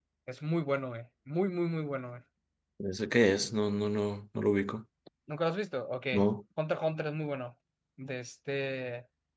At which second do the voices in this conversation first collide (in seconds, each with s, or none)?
none